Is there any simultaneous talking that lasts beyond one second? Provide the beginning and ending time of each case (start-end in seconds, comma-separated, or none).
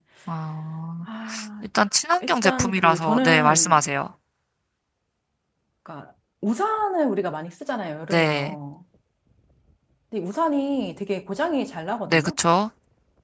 2.2-3.8